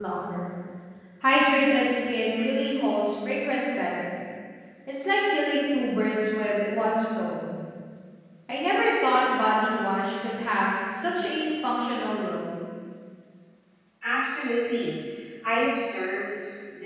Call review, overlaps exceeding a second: none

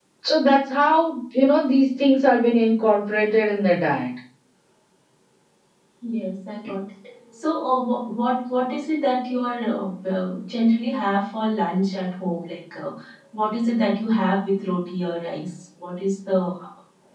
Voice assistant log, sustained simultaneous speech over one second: none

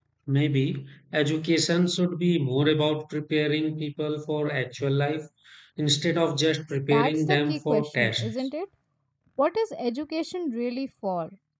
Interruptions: present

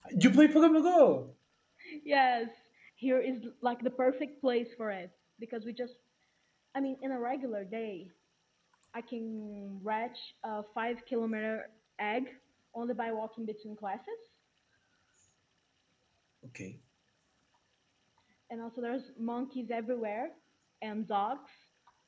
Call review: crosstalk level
none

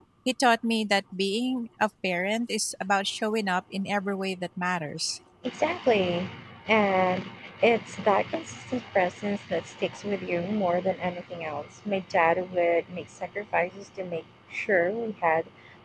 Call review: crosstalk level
none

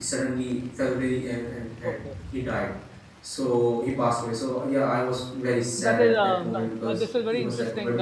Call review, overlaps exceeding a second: present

